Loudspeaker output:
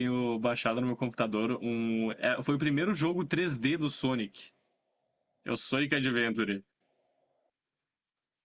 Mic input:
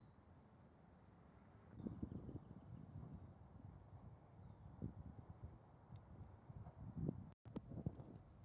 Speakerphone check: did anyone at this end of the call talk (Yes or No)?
No